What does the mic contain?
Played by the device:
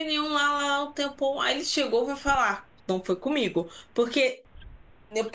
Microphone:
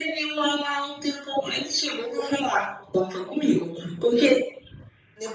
echo only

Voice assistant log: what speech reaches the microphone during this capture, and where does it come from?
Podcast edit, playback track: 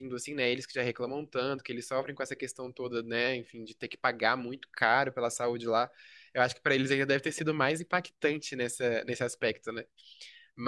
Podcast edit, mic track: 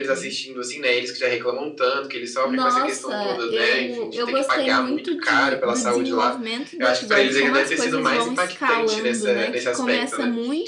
both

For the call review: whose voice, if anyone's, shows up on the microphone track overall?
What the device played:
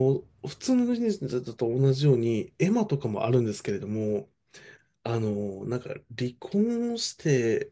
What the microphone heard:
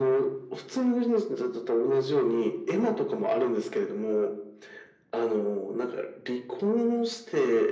echo only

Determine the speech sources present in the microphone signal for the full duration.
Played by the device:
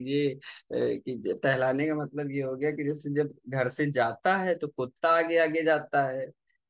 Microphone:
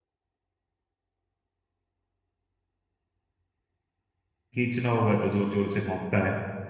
user only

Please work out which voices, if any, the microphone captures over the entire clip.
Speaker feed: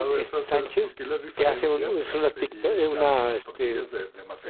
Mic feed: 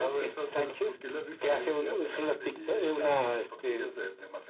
echo only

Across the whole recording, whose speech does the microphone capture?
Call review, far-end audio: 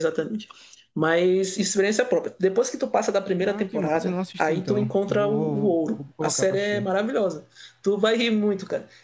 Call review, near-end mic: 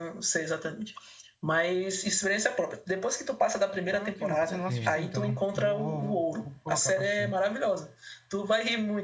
both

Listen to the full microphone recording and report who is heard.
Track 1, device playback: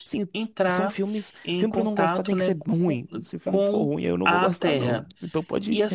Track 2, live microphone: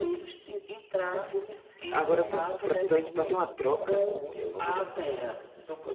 both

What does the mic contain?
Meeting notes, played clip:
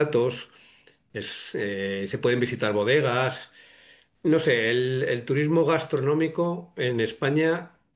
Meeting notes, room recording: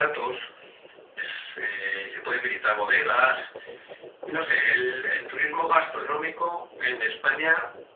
echo only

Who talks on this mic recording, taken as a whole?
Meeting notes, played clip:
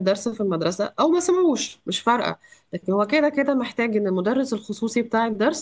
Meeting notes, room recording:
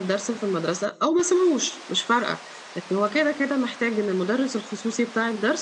echo only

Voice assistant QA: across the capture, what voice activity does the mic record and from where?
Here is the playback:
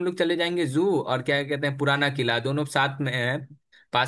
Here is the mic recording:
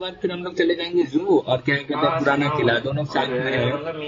both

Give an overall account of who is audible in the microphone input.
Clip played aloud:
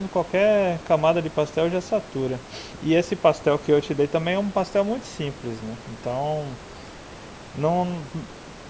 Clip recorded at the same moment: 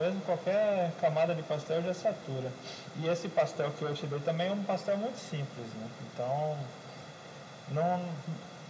echo only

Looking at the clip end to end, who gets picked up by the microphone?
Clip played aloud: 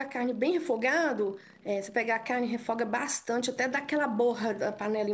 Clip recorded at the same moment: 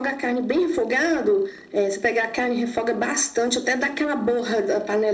echo only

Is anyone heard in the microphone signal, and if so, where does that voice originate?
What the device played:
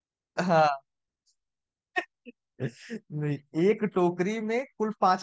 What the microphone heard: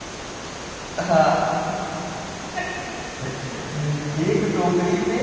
echo only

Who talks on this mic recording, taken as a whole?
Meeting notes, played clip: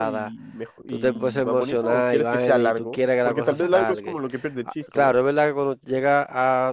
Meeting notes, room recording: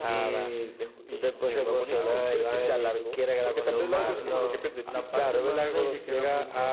both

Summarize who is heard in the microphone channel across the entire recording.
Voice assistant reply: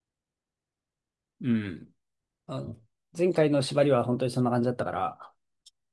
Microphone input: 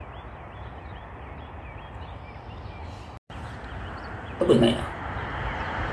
user only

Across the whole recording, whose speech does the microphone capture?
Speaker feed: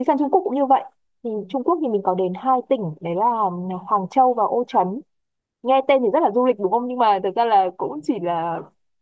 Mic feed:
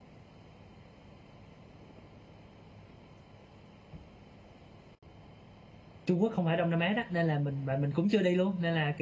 user only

